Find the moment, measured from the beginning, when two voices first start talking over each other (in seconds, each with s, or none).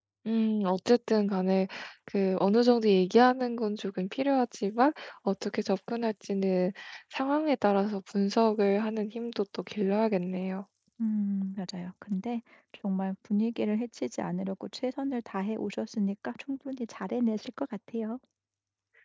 none